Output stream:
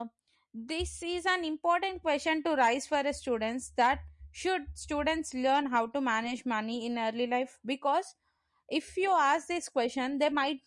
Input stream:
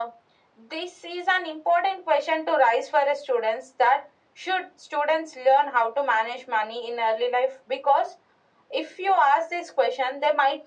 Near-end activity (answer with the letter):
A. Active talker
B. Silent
B